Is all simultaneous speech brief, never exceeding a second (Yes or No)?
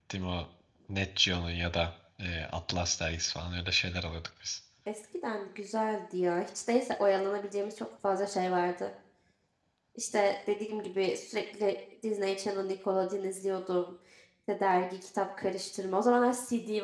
Yes